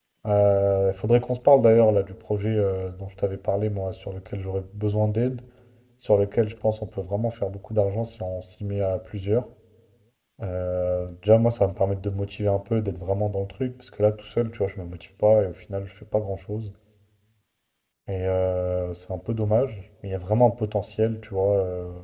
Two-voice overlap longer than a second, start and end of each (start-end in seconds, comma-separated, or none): none